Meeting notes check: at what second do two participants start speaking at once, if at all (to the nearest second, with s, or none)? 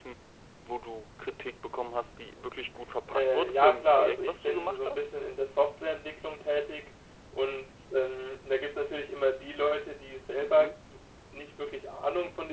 3 s